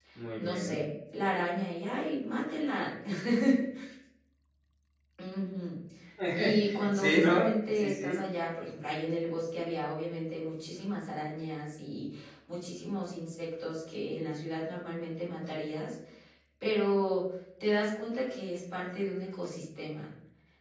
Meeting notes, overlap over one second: present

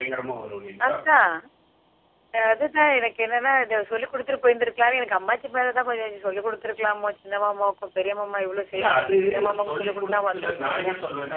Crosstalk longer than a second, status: present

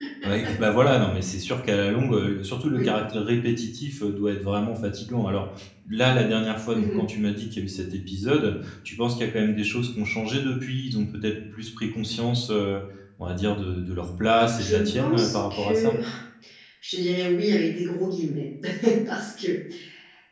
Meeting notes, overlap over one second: present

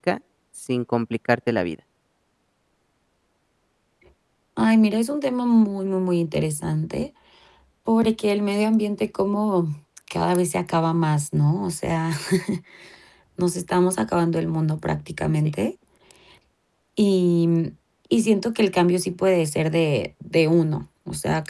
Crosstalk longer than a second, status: none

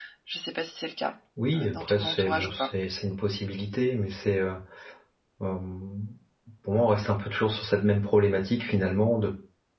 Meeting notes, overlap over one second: present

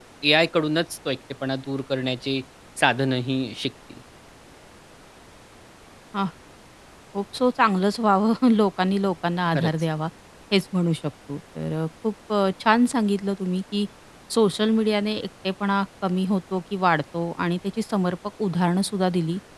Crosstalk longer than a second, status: none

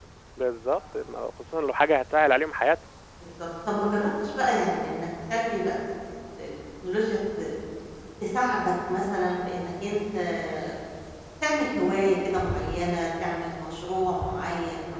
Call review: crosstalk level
none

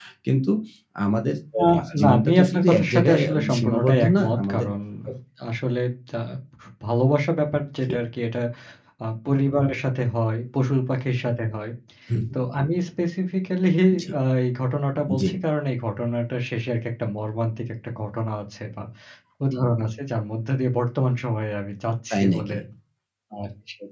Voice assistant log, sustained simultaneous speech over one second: present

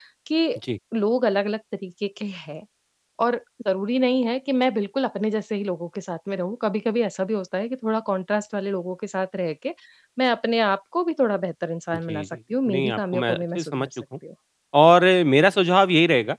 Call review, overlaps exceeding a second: present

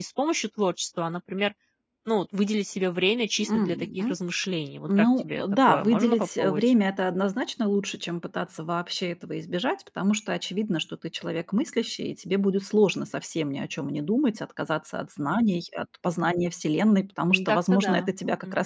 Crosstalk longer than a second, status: present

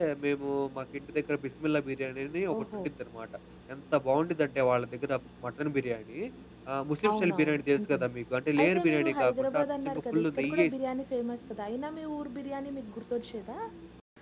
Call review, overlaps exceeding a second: present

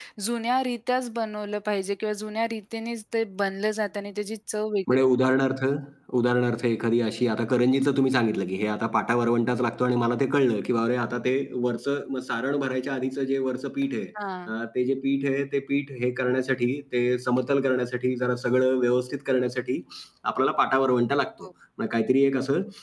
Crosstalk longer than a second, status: none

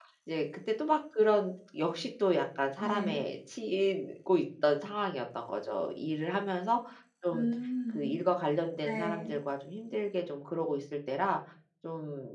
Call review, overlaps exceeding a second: none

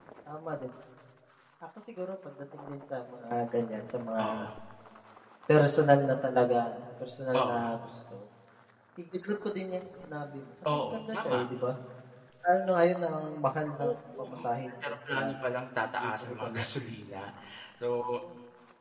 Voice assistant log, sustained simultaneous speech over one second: present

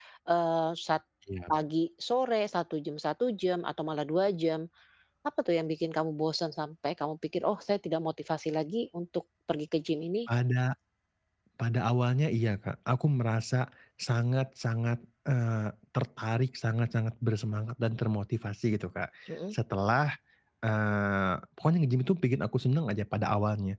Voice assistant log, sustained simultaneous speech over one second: none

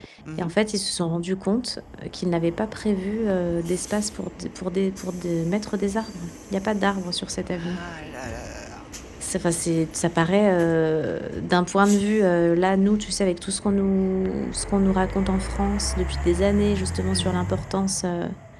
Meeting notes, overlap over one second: none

